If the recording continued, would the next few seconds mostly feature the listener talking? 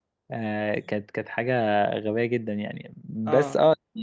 No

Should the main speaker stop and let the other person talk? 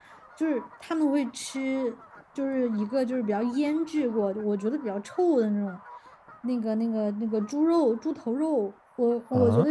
No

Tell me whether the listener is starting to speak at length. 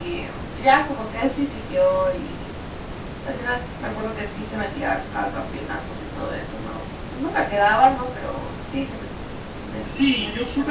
Yes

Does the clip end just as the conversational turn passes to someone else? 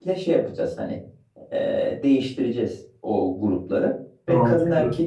No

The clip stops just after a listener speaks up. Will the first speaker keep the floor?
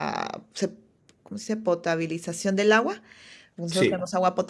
Yes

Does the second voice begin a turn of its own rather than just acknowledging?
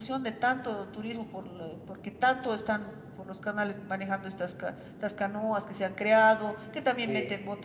No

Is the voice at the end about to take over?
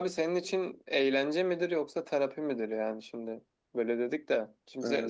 No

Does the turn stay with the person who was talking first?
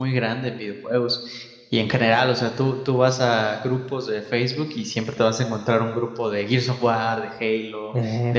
Yes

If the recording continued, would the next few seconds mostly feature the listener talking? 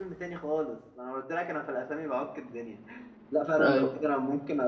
No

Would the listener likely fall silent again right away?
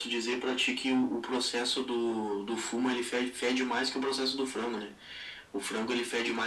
Yes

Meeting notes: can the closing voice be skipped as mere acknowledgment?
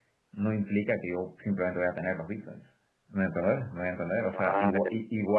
Yes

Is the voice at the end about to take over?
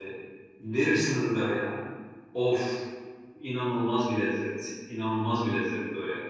No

